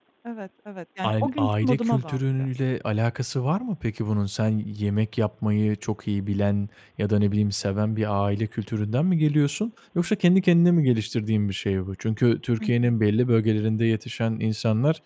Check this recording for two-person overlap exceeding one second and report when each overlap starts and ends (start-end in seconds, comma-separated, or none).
1.0-2.5